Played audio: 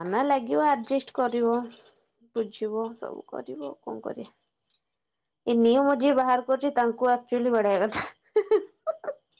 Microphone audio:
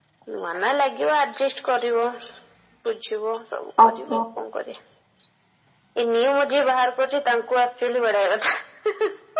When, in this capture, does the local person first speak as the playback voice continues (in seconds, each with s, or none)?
3.8 s